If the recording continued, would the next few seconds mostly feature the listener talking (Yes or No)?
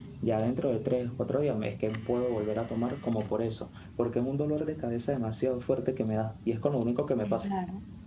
Yes